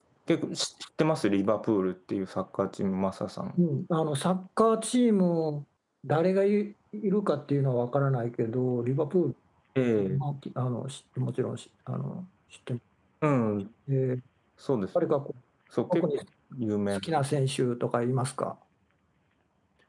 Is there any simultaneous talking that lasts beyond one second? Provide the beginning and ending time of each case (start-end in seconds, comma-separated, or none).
none